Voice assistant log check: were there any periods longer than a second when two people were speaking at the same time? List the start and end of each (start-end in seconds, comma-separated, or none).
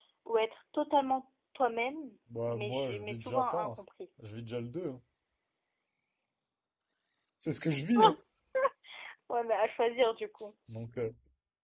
2.5-3.7